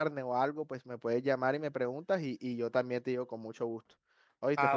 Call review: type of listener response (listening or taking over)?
taking over